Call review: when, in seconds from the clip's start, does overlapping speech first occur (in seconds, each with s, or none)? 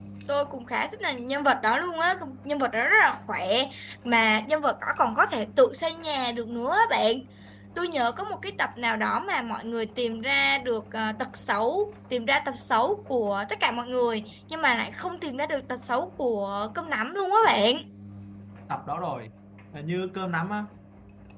none